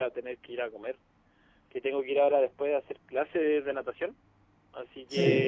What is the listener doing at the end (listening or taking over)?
listening